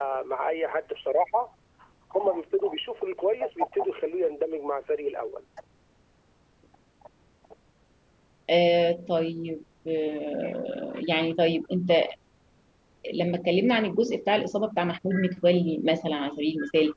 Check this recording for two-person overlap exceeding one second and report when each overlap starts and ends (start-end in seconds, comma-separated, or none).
none